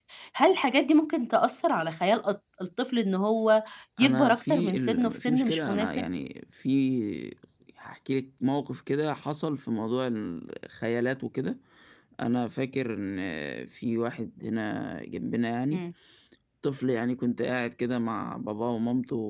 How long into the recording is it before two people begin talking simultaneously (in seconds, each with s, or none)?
4.0 s